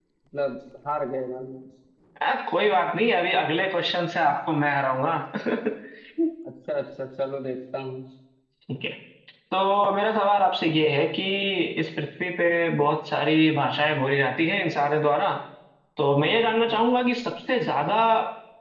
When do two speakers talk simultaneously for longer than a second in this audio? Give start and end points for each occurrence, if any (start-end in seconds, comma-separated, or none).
none